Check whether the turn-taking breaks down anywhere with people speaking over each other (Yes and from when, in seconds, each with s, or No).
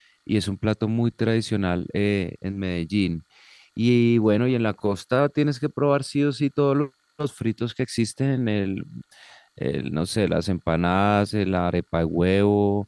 No